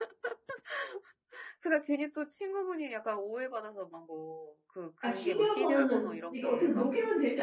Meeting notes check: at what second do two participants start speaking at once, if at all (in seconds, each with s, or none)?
5.0 s